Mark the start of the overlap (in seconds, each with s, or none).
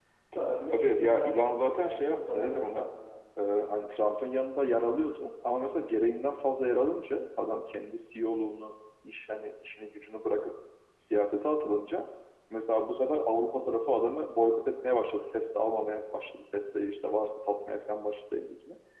0.7 s